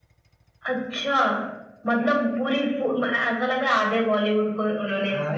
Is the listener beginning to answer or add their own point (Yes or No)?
Yes